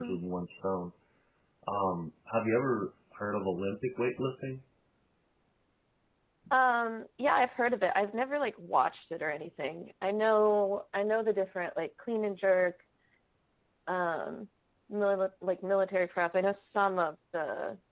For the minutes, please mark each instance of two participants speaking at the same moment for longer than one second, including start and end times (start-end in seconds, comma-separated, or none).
none